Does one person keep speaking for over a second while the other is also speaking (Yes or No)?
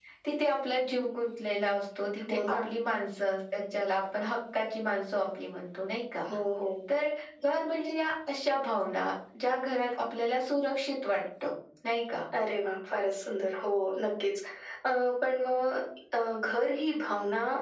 No